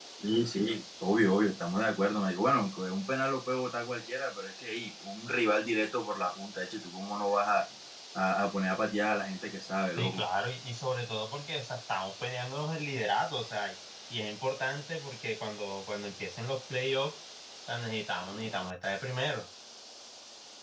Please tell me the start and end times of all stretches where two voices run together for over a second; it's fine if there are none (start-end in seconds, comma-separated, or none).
none